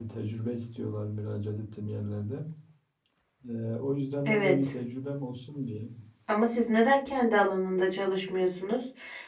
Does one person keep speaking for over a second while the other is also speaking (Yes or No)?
No